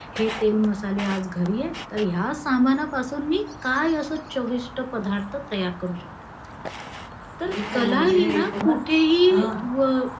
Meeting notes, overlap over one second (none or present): present